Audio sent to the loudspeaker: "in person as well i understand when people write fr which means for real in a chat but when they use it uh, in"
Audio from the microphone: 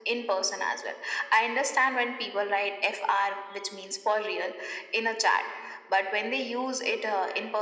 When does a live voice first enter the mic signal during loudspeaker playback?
none

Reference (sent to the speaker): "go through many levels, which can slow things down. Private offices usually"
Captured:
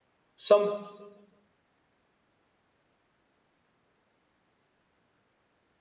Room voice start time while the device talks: 0 s

